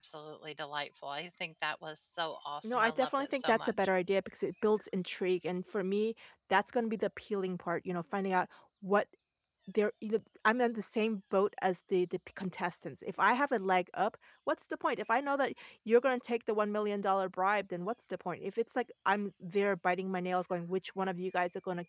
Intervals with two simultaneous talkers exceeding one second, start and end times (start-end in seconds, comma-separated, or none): 2.6-3.9